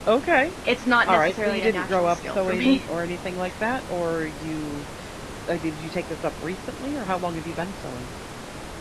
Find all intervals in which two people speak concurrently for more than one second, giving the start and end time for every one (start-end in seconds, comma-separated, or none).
1.1-2.8